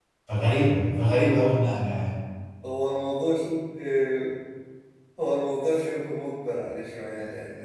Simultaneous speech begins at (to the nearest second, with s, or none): none